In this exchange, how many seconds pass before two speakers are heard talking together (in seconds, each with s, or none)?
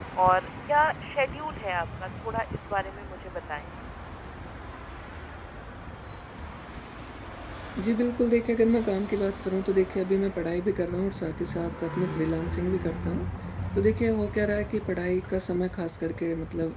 none